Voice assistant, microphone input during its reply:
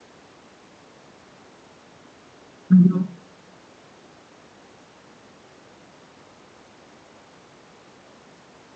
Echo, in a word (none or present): none